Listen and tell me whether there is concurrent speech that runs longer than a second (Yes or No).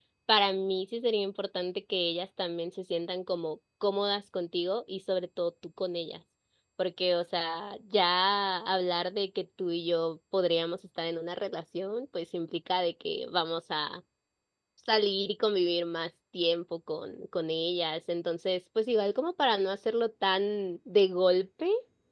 No